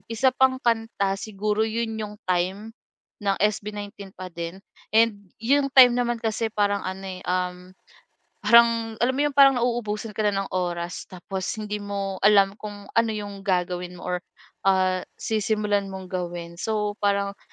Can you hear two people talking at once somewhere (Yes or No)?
No